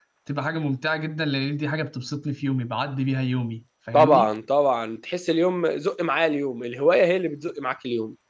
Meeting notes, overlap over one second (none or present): none